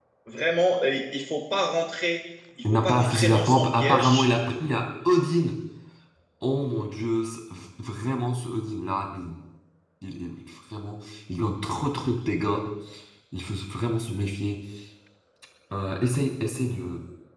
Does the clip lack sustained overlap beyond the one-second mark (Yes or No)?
No